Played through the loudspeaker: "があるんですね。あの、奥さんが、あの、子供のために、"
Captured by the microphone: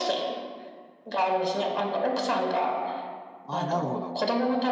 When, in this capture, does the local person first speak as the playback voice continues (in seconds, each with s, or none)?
3.4 s